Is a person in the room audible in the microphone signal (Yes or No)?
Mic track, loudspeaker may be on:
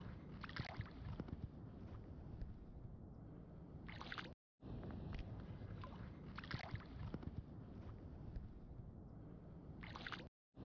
No